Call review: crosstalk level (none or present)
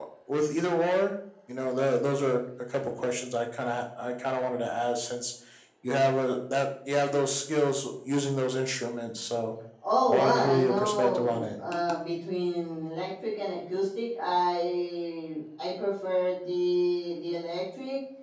present